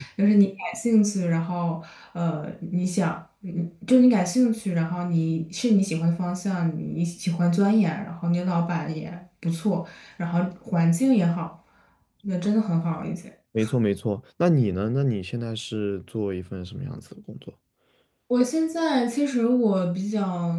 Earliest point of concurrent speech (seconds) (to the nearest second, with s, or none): none